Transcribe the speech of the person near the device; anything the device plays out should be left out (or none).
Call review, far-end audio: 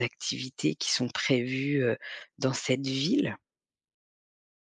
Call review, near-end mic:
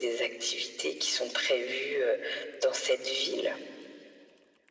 none